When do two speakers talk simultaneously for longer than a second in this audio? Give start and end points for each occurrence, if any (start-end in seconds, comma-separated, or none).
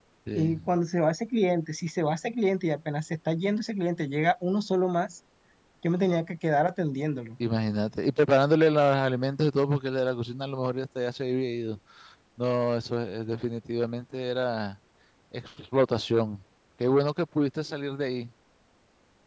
none